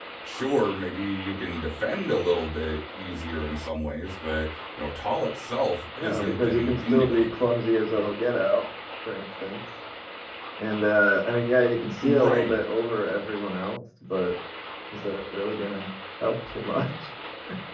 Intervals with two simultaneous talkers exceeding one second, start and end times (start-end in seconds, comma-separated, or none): 6.0-7.4